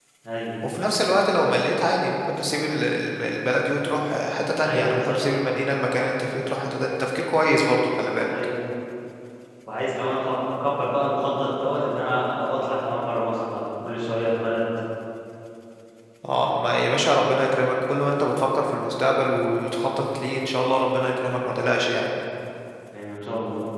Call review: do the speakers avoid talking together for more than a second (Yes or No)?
Yes